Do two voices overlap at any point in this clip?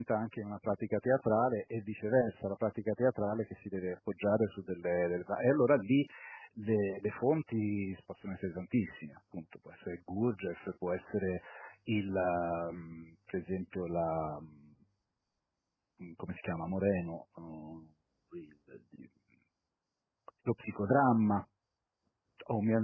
No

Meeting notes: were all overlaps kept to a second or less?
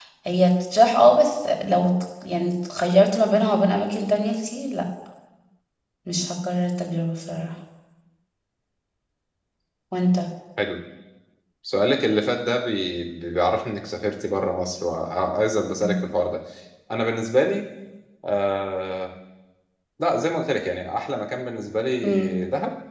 Yes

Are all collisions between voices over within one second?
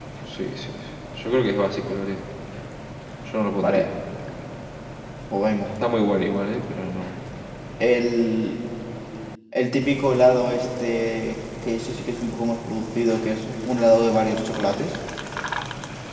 Yes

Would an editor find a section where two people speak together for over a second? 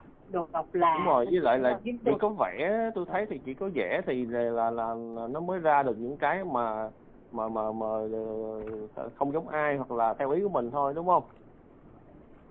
Yes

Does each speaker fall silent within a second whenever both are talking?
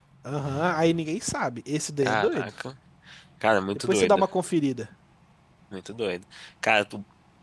Yes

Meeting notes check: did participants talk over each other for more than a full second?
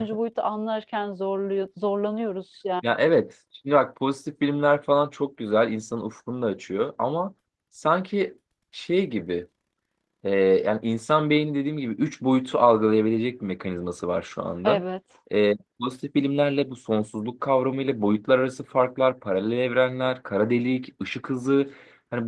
No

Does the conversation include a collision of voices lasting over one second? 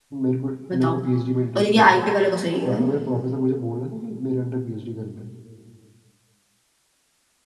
No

